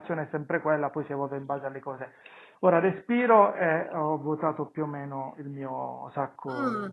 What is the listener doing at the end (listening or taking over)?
taking over